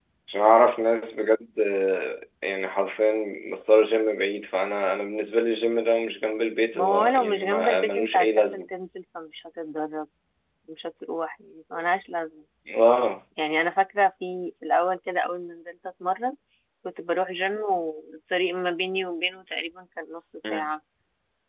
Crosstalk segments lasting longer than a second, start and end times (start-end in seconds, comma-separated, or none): 6.7-8.6